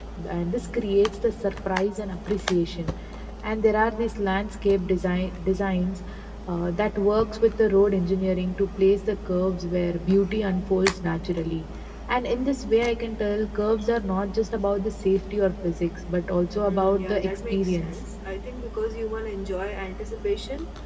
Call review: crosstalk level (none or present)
present